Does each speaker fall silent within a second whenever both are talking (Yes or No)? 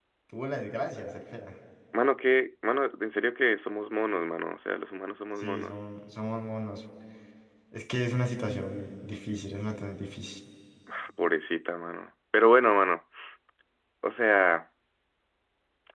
Yes